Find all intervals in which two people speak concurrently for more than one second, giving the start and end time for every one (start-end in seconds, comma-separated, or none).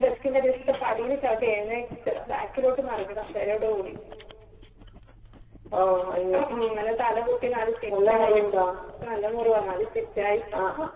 none